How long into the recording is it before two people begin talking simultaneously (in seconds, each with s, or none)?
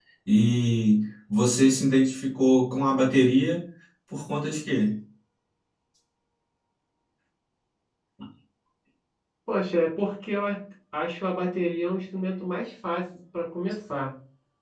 none